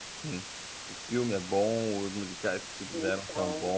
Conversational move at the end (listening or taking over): listening